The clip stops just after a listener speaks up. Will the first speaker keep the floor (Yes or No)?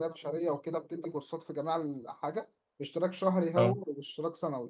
Yes